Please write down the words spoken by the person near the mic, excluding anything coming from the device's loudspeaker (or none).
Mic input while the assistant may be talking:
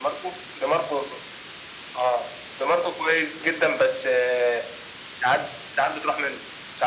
none